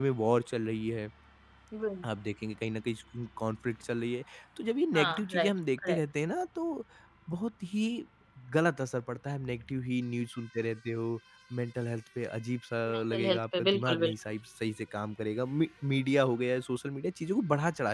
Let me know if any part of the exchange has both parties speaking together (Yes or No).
Yes